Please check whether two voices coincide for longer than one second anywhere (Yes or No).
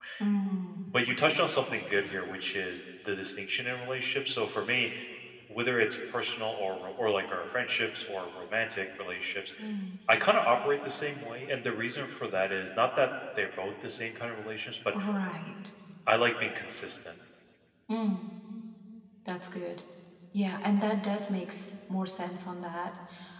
No